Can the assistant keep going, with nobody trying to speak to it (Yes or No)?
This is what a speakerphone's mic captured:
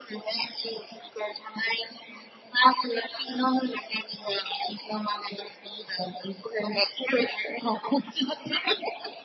Yes